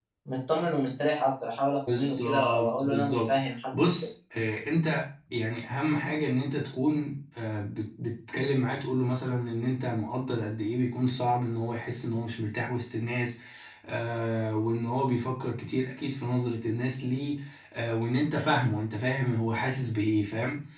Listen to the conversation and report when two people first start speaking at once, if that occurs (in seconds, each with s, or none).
1.9 s